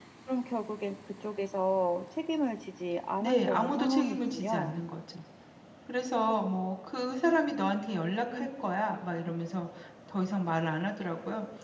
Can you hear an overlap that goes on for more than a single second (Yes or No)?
Yes